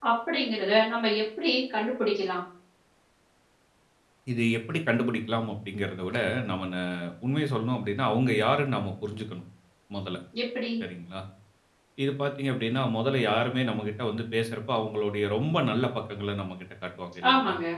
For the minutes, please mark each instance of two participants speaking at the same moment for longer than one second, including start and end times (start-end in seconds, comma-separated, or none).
none